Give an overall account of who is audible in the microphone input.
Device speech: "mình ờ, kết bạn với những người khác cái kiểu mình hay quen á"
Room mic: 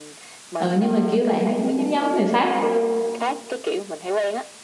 both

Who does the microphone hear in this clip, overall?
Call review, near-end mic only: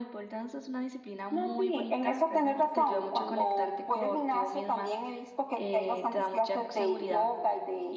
echo only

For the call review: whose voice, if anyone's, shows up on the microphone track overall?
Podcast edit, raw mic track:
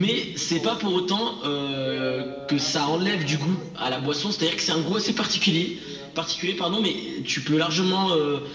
both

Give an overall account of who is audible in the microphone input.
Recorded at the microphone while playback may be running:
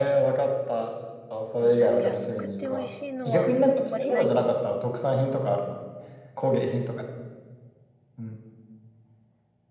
both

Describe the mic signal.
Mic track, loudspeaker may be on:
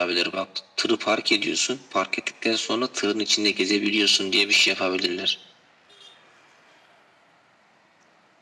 echo only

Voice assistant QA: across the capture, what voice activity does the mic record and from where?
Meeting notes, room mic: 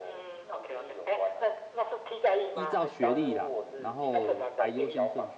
both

